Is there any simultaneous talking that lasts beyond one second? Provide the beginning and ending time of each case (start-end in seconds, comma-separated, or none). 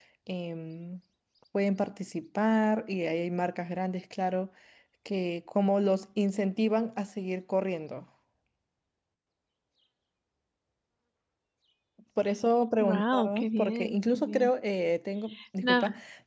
12.8-14.5